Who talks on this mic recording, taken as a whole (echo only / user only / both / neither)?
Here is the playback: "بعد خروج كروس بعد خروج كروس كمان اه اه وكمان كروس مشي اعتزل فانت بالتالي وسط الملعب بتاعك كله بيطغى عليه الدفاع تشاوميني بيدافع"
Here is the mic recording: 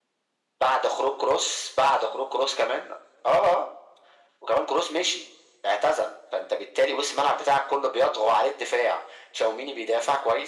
echo only